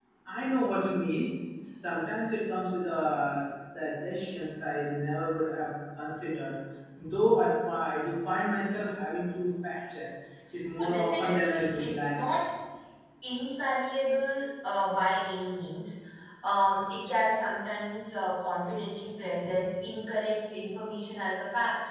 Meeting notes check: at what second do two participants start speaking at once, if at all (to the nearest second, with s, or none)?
11 s